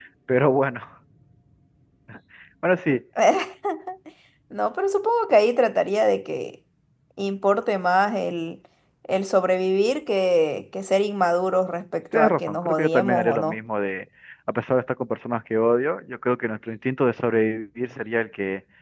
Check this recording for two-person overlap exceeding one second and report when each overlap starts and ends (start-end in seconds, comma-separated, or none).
12.2-13.6